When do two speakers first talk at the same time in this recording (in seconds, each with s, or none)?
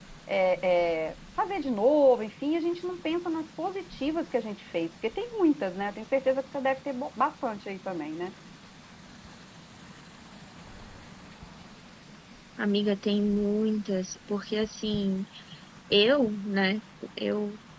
none